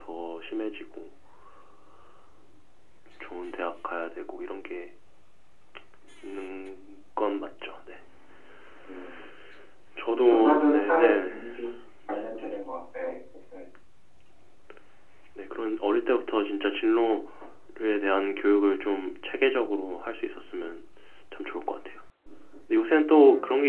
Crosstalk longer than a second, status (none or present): present